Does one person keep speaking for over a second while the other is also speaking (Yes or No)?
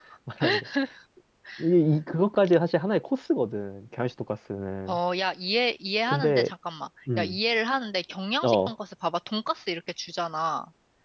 No